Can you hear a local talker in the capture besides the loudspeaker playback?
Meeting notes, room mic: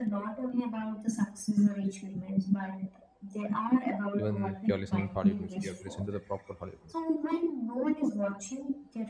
Yes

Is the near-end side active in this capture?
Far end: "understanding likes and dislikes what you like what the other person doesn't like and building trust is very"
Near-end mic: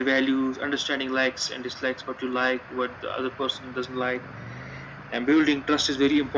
No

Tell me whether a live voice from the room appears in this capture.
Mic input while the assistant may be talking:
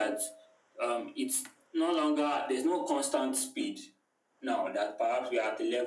No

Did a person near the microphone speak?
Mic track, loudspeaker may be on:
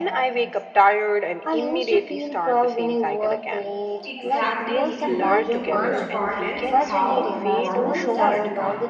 Yes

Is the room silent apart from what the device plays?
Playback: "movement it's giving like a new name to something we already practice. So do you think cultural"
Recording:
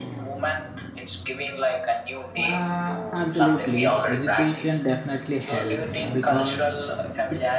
No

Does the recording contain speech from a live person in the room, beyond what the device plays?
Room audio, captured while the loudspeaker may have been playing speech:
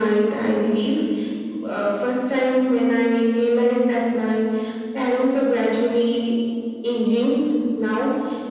No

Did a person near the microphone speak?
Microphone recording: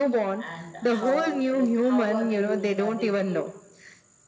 Yes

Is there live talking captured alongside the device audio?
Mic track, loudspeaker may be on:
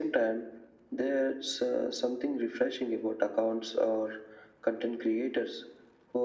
No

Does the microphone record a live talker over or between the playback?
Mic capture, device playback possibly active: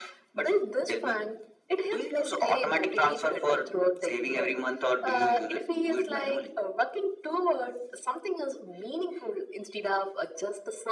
No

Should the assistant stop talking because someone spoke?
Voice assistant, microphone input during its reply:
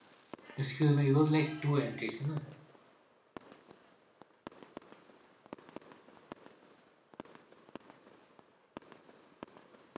Yes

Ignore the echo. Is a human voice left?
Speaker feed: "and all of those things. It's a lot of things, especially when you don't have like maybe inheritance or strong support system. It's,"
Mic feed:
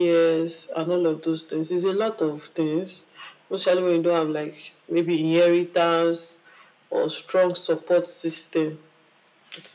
No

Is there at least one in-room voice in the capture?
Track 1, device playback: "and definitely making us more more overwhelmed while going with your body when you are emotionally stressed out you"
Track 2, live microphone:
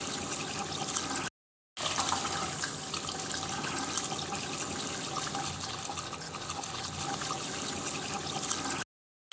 No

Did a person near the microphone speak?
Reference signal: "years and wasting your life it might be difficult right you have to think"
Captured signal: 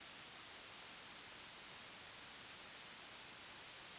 No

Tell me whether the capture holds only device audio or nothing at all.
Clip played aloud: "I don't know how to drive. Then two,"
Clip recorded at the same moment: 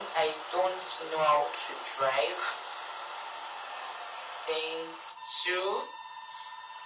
Yes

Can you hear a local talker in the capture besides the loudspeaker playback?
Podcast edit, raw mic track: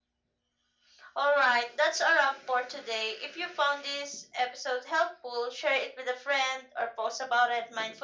No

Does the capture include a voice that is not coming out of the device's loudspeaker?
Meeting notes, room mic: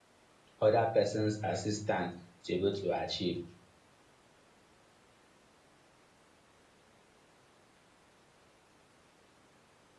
Yes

